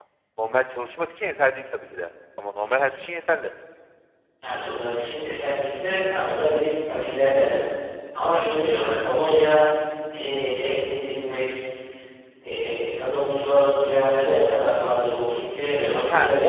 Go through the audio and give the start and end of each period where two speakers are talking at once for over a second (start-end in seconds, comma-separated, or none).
none